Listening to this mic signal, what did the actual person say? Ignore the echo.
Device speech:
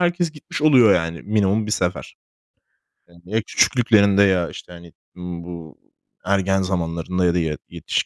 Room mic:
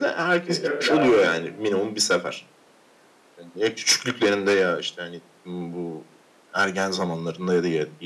E, e, yani bu

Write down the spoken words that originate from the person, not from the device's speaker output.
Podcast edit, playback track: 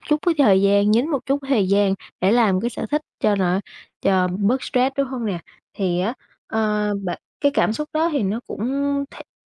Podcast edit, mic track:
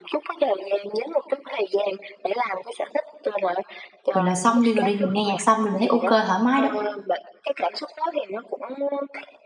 gọi là, xong đi rồi đi, mình nghe nhạc xong rồi mình thấy ok thoải mái đó,

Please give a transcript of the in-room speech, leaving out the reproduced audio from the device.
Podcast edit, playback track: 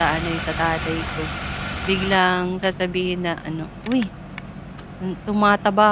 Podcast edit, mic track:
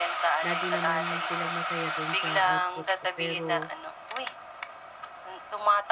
lagi naman silang masaya dun sa output ko pero

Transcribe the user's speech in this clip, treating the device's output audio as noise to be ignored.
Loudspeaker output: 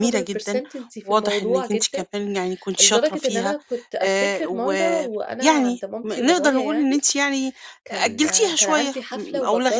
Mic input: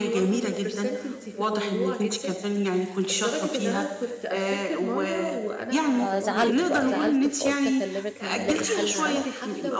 فزعلت بقى، زعلت فقُلت أكلّمِك نلاقي حَل سوا،

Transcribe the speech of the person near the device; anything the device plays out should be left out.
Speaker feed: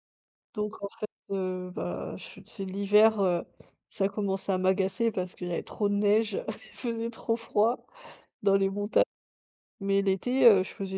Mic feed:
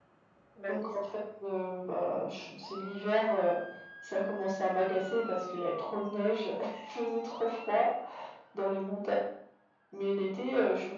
bah, oui, c'est ça.

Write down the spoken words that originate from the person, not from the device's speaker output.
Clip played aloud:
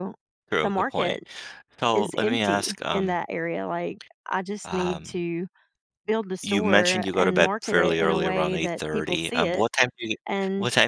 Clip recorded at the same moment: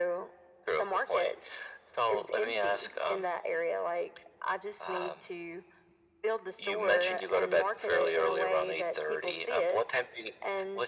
none

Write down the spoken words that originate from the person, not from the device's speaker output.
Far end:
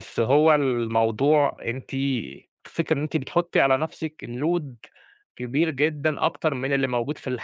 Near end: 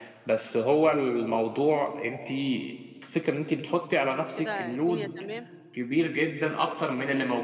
كده الدنيا تمام،

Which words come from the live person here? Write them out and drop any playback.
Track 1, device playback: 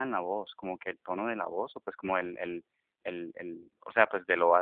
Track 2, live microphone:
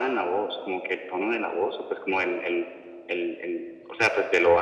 none

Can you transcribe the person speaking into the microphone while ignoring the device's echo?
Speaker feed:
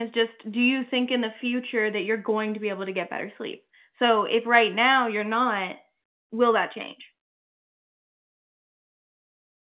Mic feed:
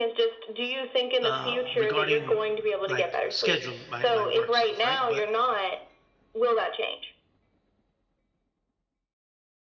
uh regarding like scheduling my my work stuff, right? But

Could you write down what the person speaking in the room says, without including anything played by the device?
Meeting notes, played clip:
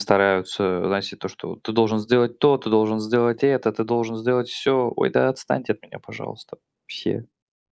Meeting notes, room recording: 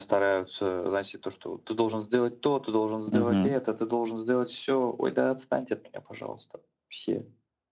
мгм.

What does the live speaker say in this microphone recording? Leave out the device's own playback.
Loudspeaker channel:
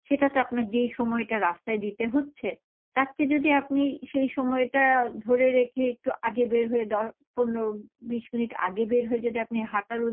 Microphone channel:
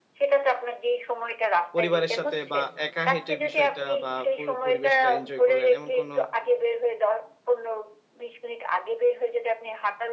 পরিবারের সাথে বা একা হেঁটে বিষয়টা বা পরি পরিবেশটা এনজয় করলেন এমন কোন

